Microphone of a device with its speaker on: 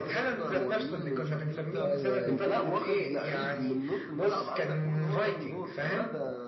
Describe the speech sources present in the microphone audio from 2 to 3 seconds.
both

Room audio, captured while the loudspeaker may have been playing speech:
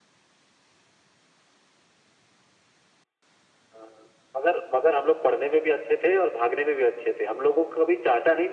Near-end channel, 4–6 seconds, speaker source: echo only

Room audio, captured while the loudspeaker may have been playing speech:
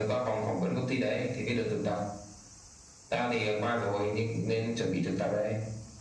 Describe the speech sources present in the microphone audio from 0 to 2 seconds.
echo only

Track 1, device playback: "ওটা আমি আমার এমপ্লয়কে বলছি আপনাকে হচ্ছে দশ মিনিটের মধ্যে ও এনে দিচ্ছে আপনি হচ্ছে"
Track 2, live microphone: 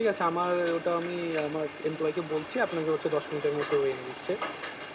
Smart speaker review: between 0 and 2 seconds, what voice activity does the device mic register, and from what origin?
echo only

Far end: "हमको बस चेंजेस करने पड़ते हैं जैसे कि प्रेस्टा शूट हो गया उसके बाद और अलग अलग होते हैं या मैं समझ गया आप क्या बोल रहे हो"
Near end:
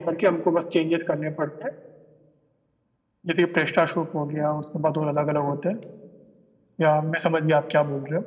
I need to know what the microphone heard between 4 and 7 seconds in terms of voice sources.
echo only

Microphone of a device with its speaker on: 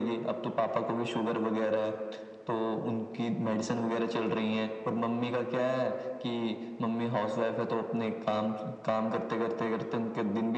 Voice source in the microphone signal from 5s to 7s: echo only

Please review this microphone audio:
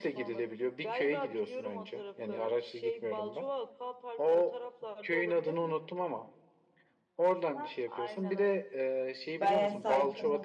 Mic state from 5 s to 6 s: echo only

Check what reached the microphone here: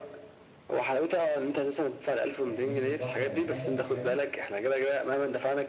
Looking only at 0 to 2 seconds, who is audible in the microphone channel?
echo only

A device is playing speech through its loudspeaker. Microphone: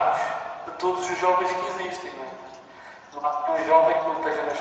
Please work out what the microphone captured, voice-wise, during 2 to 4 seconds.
echo only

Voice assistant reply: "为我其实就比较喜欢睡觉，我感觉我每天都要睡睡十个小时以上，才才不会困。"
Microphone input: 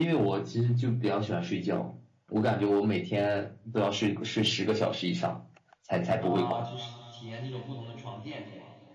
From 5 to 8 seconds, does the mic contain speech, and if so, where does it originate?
both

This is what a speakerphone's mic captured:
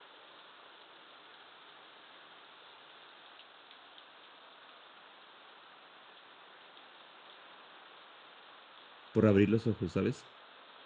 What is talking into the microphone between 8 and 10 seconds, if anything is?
user only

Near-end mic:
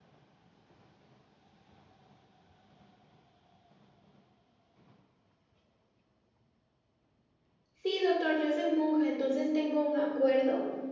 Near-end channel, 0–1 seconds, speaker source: neither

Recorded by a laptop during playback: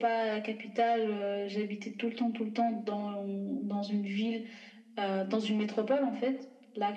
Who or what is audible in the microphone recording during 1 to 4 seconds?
echo only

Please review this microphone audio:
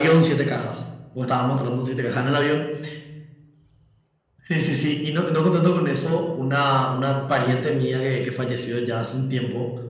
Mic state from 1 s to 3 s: echo only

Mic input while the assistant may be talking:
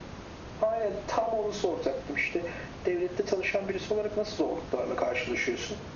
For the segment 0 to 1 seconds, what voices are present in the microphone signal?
echo only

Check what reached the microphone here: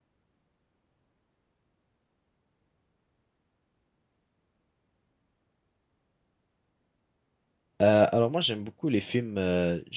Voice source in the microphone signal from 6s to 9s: user only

